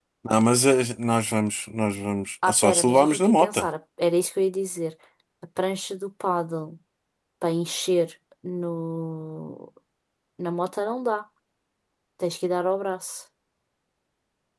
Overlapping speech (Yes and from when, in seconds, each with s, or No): Yes, from 2.4 s